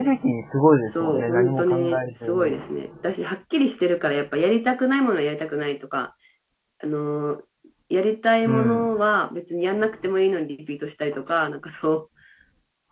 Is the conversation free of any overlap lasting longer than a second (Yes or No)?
No